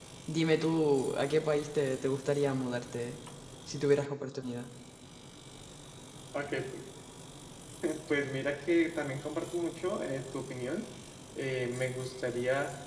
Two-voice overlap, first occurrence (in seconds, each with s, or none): none